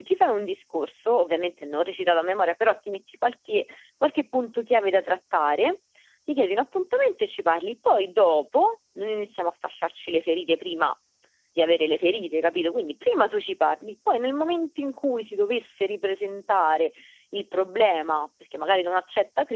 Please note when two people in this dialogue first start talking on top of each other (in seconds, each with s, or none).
none